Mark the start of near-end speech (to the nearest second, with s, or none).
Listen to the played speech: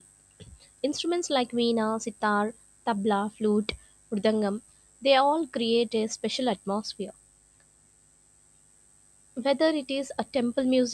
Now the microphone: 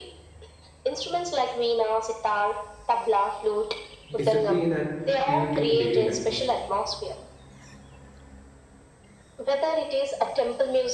4 s